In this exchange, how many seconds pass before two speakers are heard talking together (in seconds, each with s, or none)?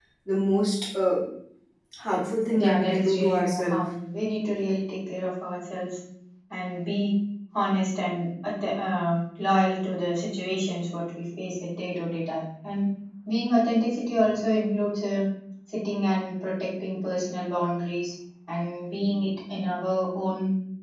2.6 s